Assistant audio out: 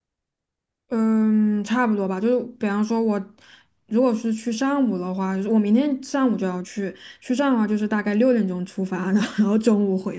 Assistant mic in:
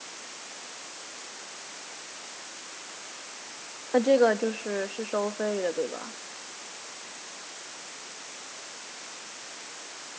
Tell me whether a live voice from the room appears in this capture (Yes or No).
Yes